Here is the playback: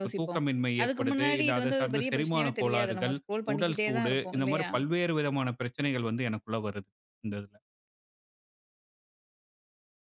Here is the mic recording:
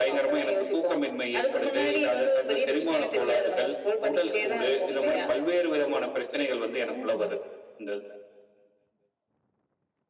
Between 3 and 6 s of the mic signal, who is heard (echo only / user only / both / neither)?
echo only